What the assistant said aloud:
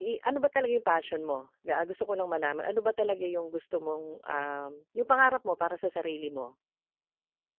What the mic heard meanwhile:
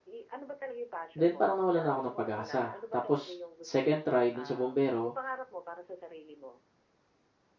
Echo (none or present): present